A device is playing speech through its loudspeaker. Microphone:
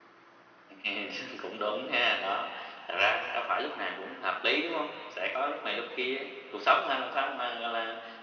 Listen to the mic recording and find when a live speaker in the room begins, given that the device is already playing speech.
none

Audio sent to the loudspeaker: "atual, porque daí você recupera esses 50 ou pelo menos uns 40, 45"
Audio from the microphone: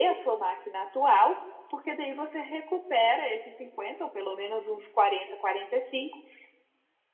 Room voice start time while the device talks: none

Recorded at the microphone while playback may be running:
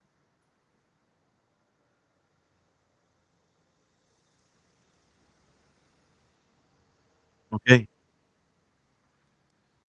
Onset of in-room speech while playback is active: 7.5 s

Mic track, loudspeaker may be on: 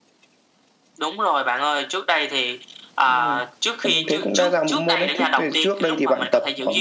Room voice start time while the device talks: none

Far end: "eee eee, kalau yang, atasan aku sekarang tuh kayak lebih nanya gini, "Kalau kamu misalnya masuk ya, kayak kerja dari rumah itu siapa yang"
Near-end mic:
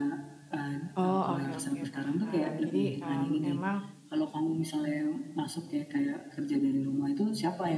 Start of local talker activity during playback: 1.0 s

